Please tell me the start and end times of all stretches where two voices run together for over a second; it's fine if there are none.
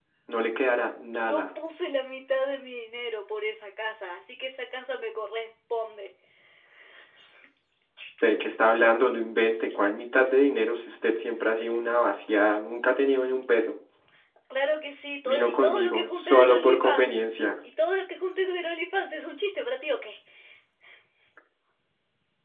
15.2-17.2

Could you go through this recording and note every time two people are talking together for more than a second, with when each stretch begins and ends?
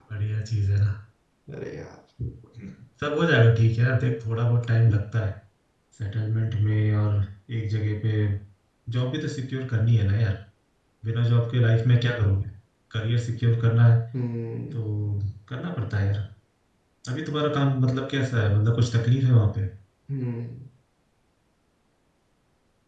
none

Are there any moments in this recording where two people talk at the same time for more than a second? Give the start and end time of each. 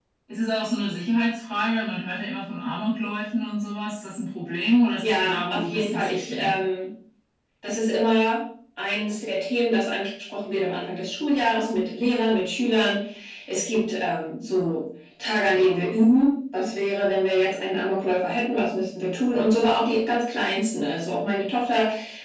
5.0-6.6

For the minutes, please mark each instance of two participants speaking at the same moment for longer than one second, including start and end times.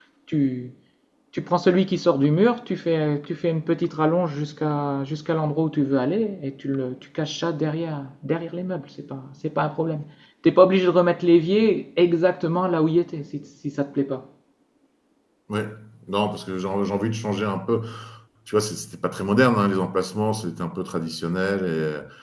none

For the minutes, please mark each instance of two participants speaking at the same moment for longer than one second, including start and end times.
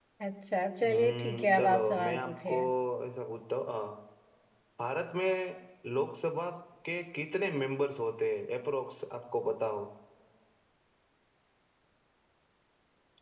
0.8-2.6

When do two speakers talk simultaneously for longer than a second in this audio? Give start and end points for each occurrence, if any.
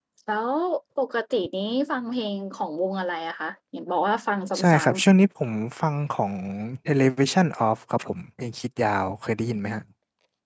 none

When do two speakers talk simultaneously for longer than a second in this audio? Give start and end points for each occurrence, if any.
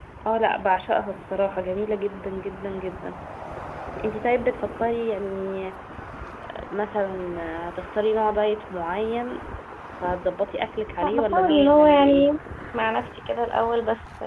11.0-12.3

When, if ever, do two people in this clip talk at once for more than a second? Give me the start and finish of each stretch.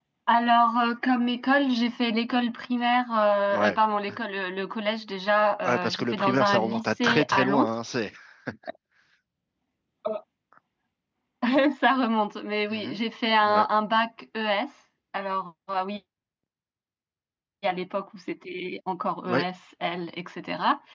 5.6-7.7

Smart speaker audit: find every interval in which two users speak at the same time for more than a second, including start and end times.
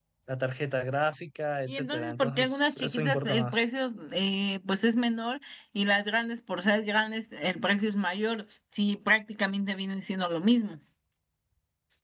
1.7-3.6

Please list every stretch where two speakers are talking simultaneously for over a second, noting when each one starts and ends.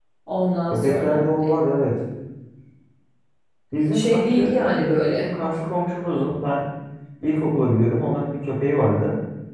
3.9-5.3

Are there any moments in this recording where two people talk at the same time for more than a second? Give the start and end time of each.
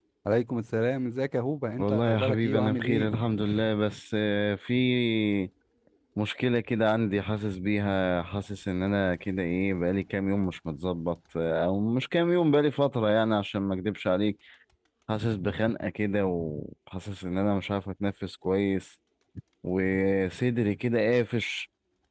1.8-3.1

